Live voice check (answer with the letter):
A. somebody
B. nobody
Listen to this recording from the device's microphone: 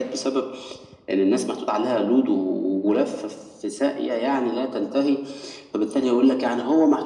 B